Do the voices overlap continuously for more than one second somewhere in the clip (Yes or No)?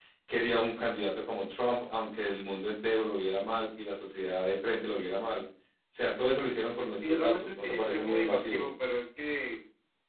Yes